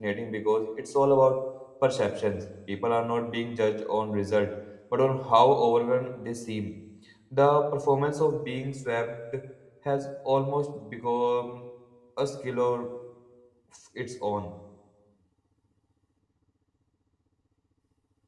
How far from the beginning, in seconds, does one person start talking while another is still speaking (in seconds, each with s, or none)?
none